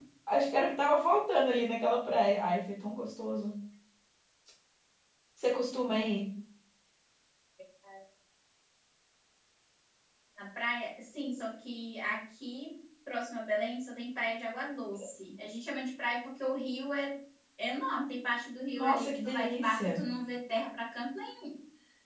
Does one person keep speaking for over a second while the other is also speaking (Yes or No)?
Yes